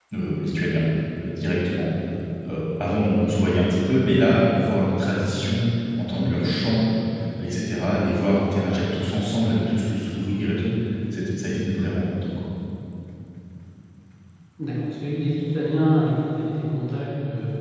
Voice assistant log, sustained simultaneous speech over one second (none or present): none